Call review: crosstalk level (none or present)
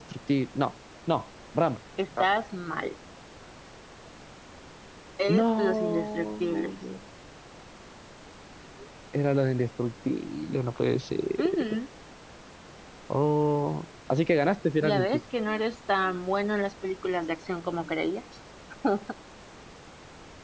present